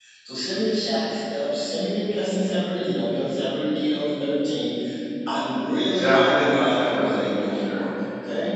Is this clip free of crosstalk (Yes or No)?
No